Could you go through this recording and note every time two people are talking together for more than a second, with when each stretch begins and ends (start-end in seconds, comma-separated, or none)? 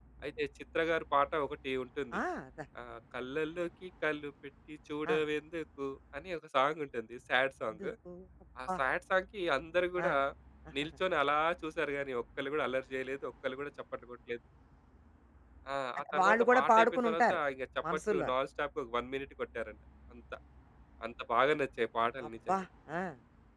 16.1-17.4